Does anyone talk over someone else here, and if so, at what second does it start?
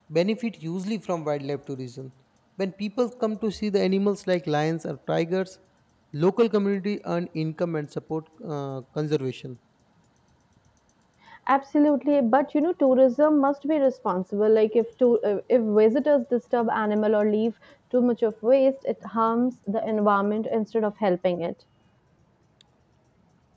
none

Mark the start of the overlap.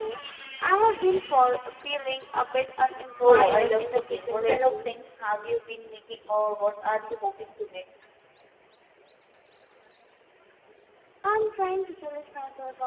3.2 s

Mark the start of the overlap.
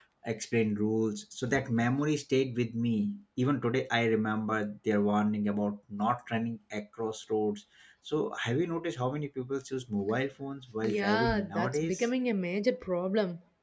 10.8 s

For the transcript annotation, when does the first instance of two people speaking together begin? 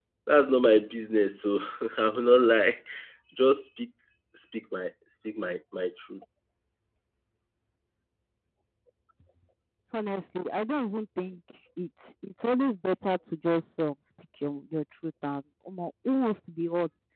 none

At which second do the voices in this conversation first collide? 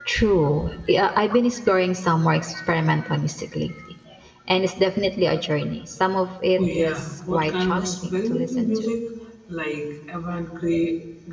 6.6 s

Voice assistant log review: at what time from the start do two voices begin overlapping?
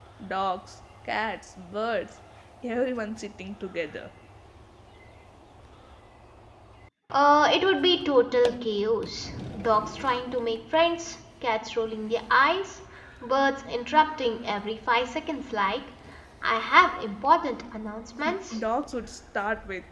none

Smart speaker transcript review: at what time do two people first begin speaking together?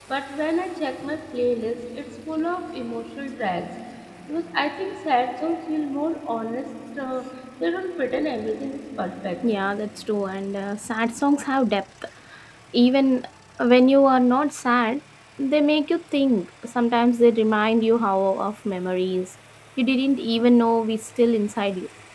none

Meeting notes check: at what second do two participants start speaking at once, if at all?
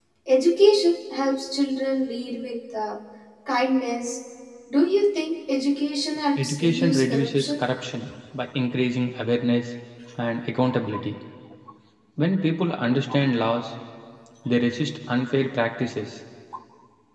6.4 s

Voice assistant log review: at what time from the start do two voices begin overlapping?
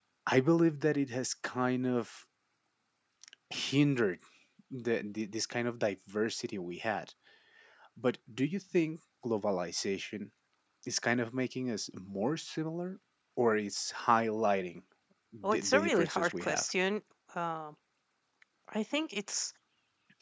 15.4 s

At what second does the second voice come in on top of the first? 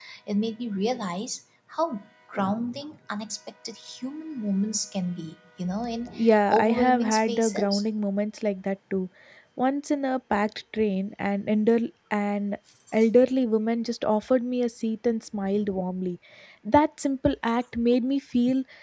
6.2 s

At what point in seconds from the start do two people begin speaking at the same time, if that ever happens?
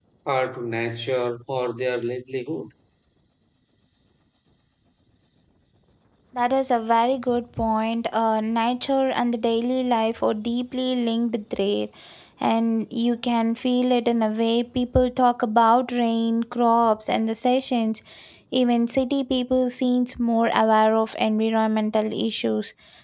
none

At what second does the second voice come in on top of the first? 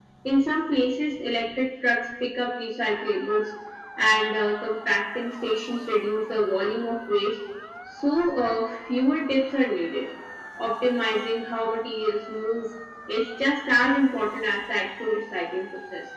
none

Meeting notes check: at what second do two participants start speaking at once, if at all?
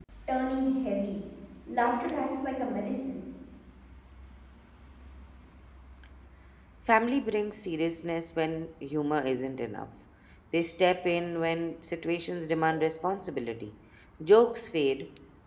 none

